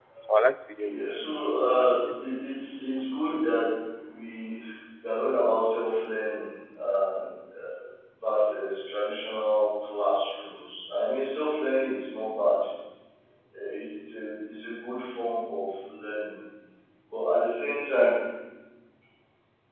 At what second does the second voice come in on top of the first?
0.8 s

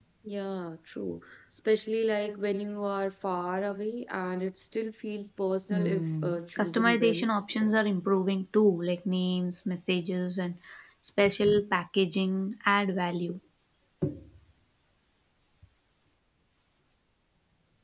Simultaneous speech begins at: 5.7 s

